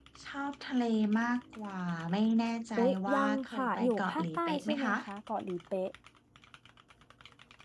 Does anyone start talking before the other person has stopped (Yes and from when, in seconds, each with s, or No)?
Yes, from 2.8 s